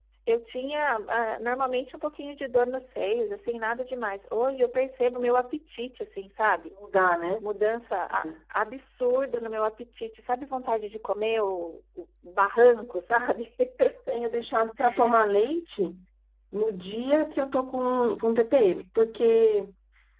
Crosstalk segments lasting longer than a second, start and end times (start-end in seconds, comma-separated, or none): none